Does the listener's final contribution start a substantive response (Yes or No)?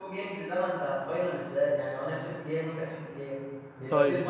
Yes